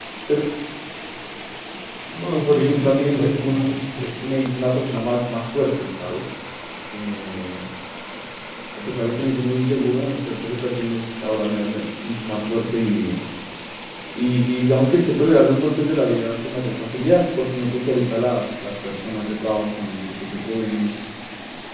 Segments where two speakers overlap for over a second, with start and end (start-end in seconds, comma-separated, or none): 2.4-3.8